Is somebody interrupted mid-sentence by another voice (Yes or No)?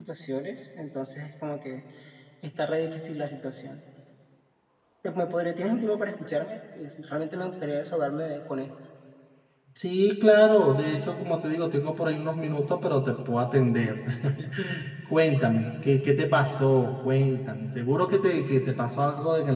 No